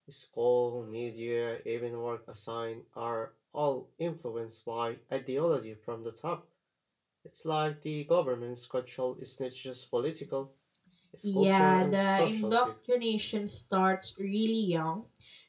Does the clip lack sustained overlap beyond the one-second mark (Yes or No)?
No